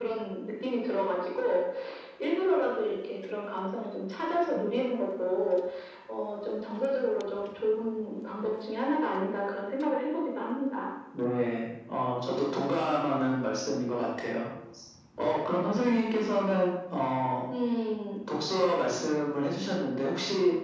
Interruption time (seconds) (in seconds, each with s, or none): none